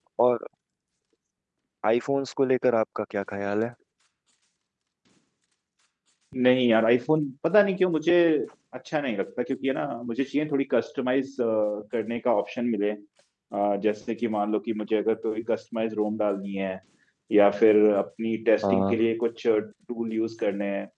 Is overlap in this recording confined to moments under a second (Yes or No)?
Yes